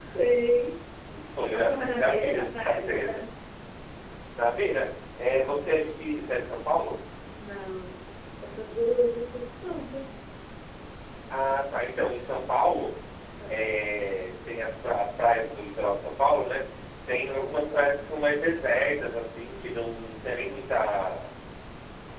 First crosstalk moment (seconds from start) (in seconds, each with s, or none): 1.5 s